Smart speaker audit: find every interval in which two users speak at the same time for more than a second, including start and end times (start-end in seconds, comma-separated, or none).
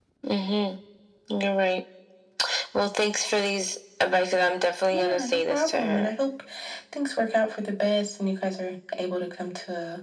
4.9-6.1